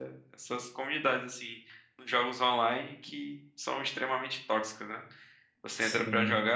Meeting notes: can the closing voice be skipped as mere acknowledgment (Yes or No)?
Yes